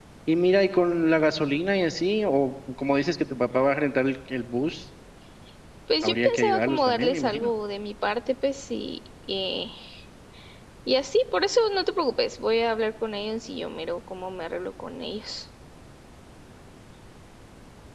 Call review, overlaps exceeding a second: present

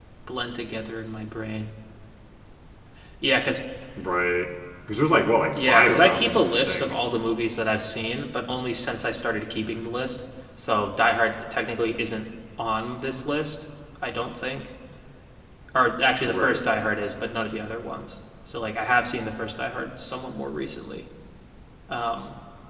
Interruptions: present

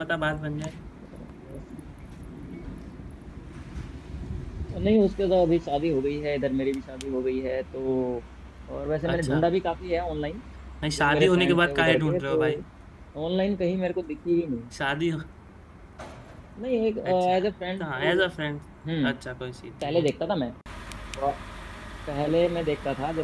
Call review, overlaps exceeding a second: present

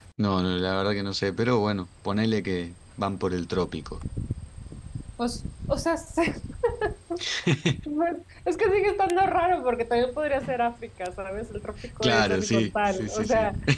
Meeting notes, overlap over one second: present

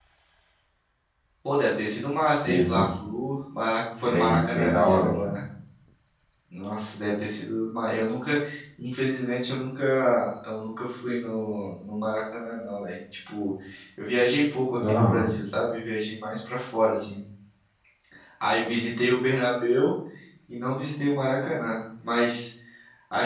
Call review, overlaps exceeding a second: present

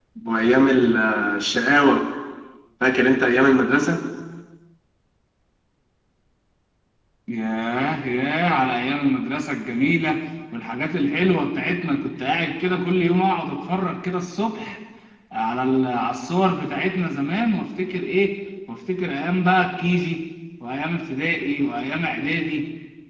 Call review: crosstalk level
none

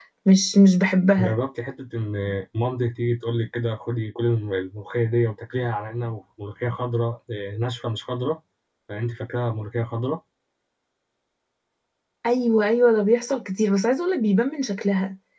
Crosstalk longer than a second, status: none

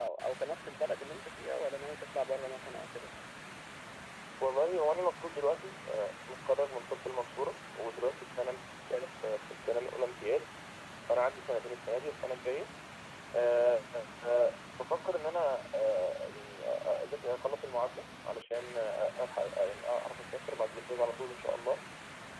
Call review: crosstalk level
none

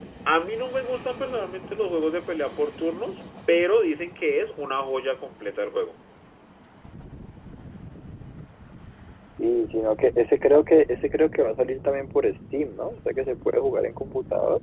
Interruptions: none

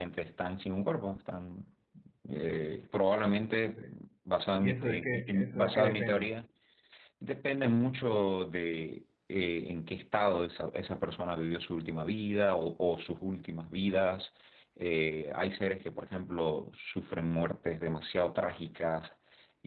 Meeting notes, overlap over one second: present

